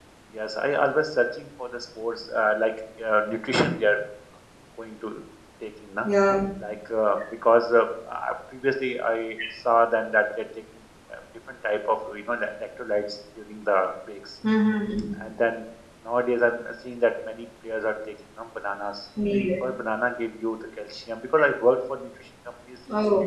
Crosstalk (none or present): none